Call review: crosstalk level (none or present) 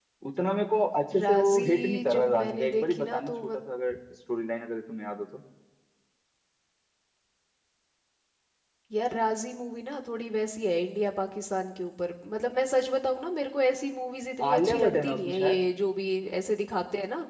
present